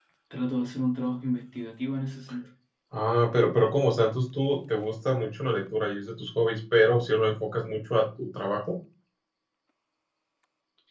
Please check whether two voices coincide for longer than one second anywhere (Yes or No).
No